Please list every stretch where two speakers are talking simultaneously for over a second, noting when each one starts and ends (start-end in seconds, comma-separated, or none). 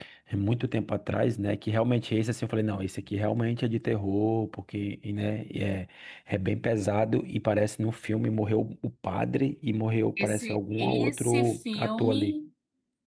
10.2-12.3